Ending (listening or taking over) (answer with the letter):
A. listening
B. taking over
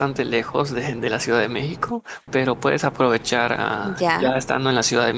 A